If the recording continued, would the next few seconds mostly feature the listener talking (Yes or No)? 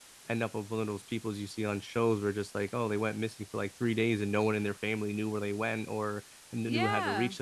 No